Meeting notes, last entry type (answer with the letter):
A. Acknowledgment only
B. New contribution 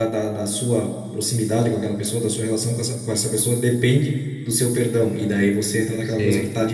A